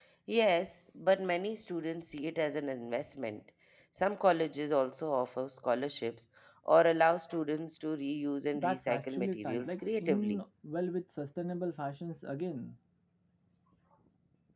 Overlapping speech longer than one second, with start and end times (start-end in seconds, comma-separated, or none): 8.5-10.4